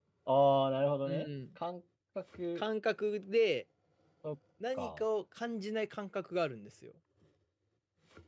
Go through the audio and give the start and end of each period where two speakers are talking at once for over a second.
none

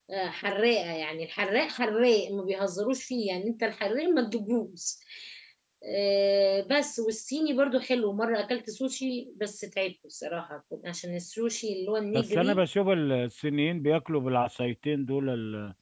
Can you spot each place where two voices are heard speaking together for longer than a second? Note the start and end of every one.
none

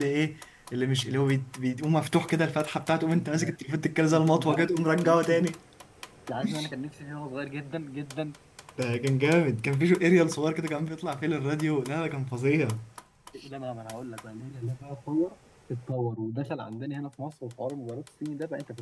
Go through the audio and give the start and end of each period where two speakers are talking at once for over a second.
4.1-5.5

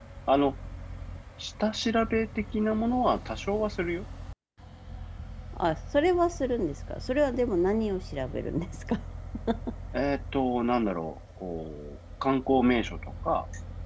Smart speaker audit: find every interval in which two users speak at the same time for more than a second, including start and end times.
none

